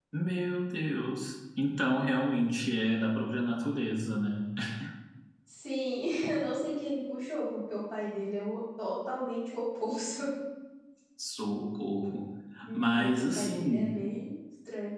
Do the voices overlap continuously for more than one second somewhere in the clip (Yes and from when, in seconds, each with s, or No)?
Yes, from 12.7 s